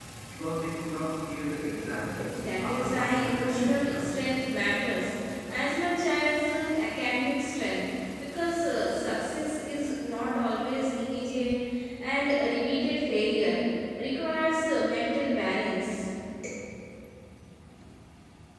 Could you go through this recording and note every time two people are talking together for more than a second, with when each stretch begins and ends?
2.6-4.1

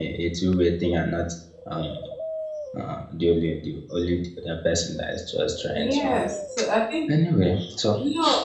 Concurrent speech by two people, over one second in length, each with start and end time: none

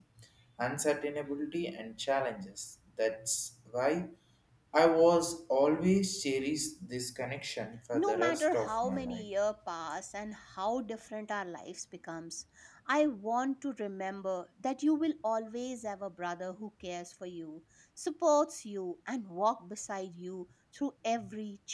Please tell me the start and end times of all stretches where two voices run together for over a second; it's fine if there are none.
7.9-9.2

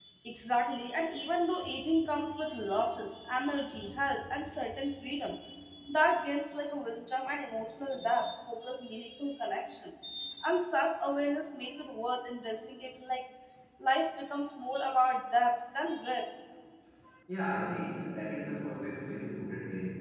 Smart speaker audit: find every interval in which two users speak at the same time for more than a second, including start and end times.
none

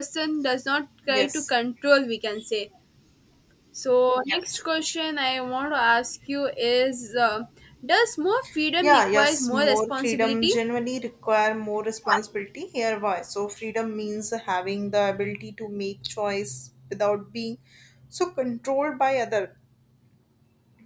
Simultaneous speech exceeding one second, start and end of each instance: 8.8-10.5

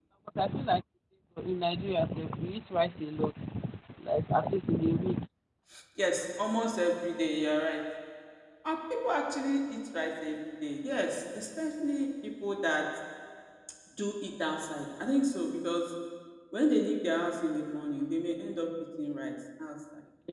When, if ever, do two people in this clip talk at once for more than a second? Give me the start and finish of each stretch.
none

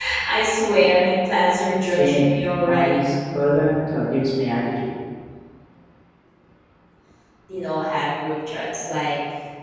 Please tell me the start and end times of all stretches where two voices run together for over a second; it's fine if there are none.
1.8-3.1

